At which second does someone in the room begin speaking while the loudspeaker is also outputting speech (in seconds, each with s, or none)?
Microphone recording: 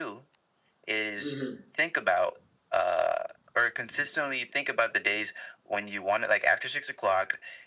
1.2 s